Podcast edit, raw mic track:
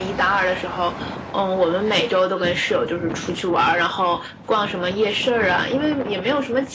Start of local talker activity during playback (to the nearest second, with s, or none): none